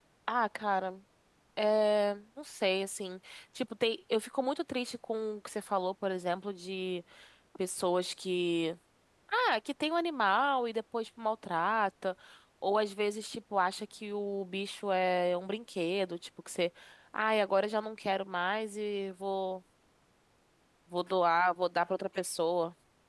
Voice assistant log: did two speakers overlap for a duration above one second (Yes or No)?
No